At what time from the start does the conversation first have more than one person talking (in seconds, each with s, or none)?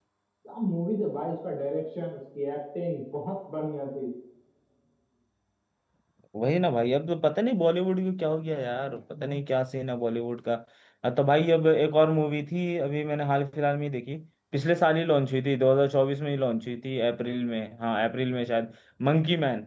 none